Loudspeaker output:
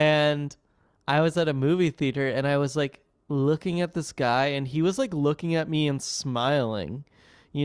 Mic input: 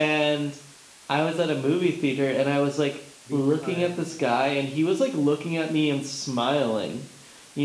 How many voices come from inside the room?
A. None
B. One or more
B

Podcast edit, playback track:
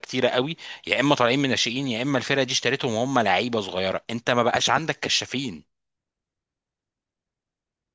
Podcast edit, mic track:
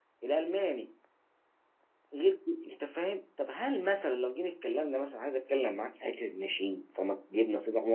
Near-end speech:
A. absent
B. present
B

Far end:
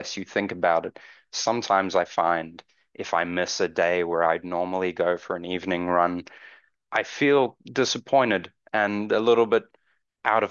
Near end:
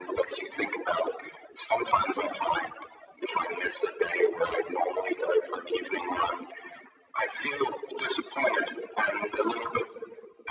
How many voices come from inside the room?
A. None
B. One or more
A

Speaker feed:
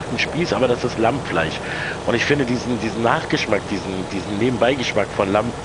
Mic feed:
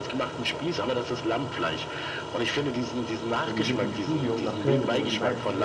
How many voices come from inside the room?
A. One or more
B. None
A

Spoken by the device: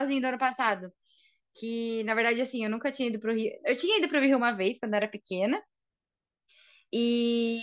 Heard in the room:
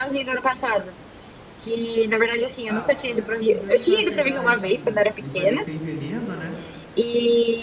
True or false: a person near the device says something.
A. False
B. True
B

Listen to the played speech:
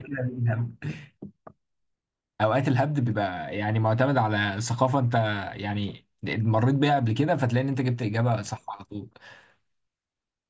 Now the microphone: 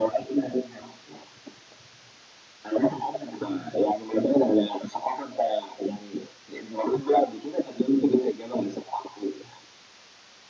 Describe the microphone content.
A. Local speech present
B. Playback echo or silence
B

